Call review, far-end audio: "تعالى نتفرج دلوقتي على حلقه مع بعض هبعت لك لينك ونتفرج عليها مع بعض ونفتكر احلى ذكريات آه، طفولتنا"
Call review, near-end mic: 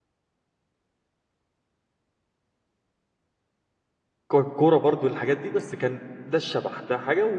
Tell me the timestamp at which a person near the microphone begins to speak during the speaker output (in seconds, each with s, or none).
4.3 s